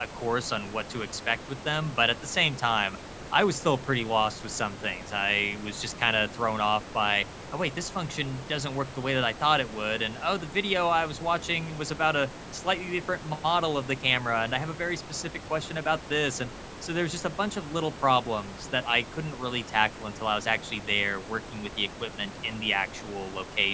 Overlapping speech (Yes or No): No